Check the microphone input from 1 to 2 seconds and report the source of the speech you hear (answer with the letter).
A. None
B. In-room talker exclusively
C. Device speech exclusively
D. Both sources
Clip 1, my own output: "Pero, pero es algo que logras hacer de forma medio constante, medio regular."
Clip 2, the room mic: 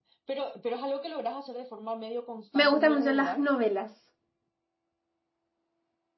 C